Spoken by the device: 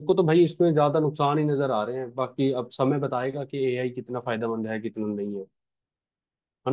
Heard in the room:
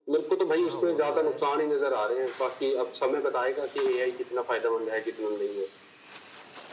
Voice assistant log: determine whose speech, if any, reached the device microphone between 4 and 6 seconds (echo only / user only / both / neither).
echo only